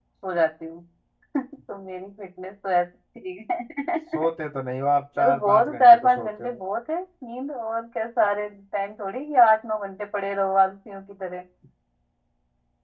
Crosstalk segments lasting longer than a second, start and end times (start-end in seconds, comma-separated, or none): 5.2-6.6